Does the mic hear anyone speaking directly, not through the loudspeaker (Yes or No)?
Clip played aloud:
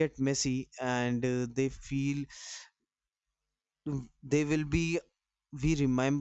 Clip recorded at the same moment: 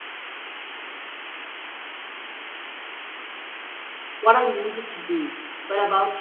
Yes